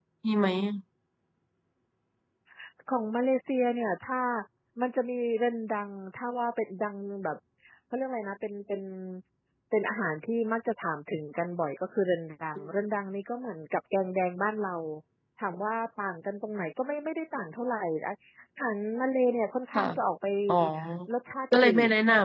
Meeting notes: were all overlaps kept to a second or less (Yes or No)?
Yes